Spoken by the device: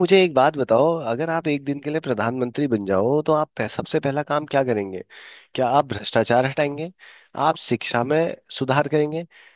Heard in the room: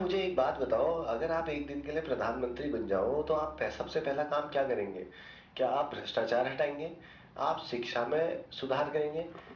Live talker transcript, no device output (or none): none